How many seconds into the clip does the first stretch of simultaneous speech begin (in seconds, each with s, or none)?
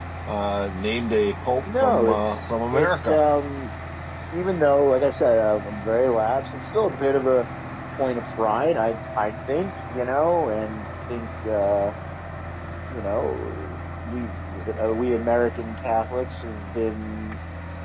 1.6 s